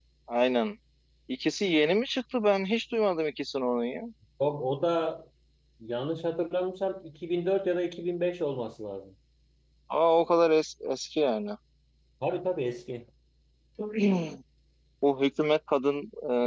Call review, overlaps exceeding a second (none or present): none